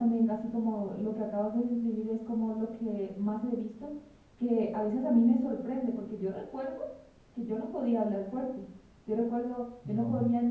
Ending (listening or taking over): listening